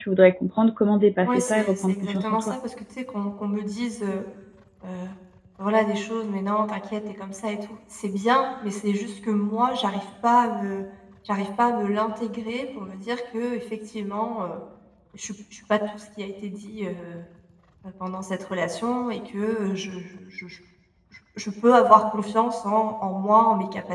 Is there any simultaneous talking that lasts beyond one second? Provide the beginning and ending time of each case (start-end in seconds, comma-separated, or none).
1.2-2.5